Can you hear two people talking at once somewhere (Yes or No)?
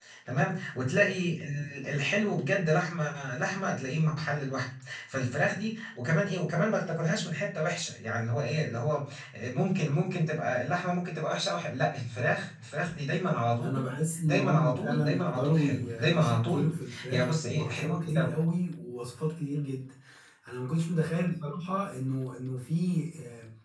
Yes